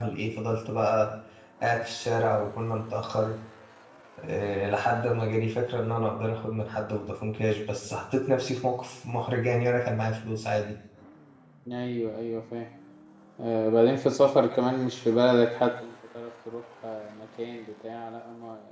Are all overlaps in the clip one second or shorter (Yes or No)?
Yes